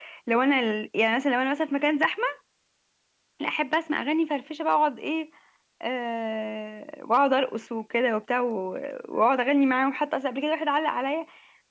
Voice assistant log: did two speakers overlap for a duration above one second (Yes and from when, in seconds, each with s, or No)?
No